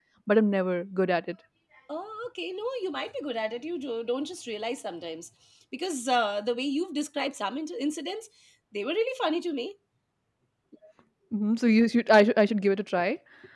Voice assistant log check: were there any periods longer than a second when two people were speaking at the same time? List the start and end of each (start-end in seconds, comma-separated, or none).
none